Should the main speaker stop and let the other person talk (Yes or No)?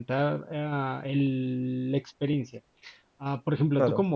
No